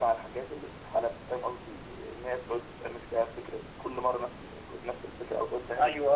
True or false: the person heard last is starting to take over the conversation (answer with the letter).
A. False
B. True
B